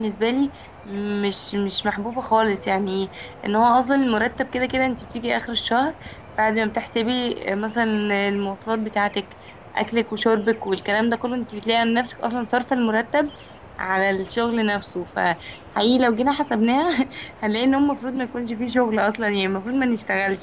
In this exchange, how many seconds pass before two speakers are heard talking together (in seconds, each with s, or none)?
none